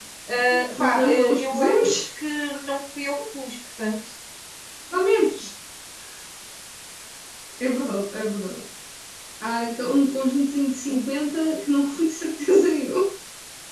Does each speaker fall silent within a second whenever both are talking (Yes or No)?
No